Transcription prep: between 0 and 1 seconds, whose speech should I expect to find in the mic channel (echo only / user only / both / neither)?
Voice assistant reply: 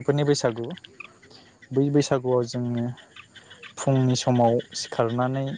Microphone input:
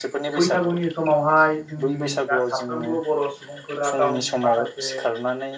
both